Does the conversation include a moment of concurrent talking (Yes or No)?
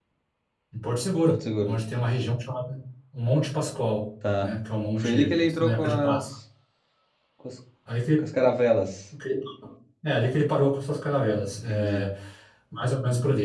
Yes